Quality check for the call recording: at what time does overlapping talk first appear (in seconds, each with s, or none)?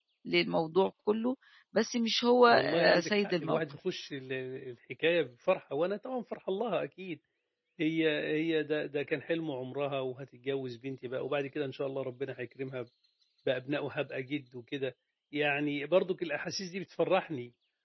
2.5 s